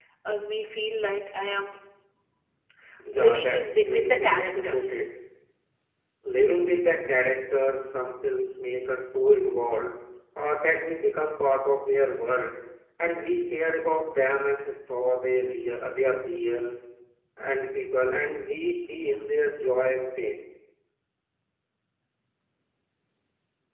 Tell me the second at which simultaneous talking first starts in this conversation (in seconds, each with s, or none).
3.2 s